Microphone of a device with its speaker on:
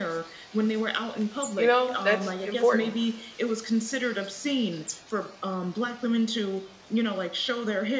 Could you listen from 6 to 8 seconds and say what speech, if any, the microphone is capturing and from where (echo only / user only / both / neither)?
echo only